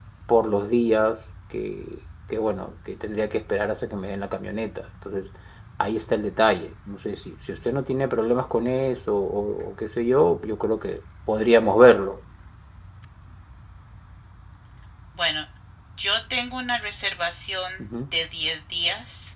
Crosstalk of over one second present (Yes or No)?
No